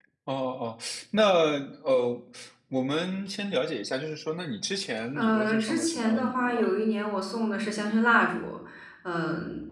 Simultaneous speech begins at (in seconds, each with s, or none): 5.1 s